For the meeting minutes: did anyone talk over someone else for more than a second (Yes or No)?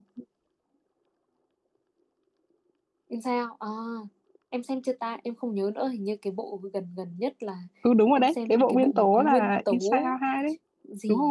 Yes